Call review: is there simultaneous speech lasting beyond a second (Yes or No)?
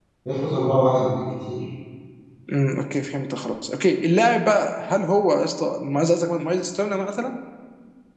No